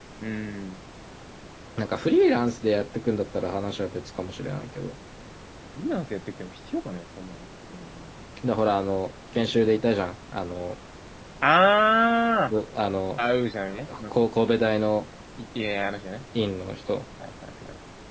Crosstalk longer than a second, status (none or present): none